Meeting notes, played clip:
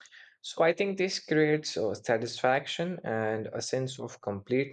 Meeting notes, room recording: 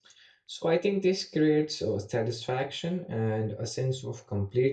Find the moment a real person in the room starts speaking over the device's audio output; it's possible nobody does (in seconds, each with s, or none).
none